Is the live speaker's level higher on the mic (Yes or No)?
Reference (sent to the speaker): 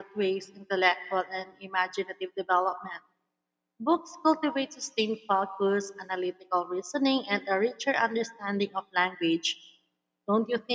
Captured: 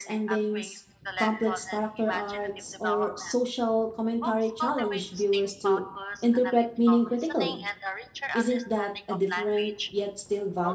Yes